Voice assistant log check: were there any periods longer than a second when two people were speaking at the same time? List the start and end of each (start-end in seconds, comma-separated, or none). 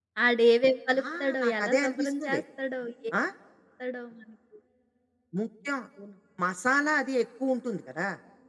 1.2-2.4